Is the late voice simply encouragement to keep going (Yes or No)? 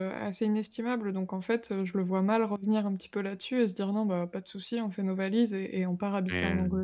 Yes